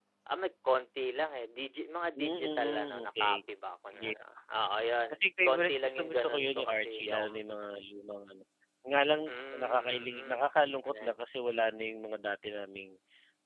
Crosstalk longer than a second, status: present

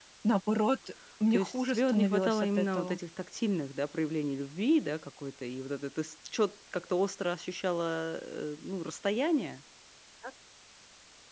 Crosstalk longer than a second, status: present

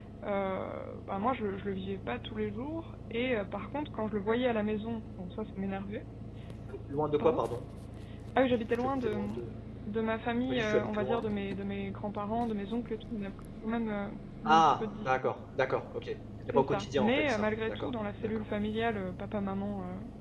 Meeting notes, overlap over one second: present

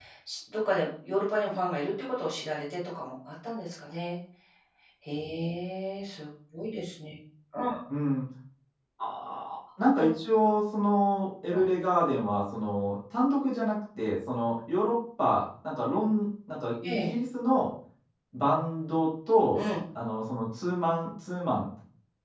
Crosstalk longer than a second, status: none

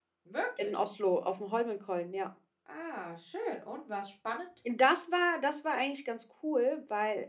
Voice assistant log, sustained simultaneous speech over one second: none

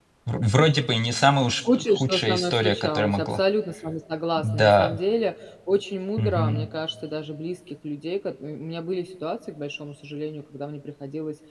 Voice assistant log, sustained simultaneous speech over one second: present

